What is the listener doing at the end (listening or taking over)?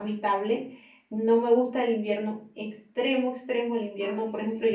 listening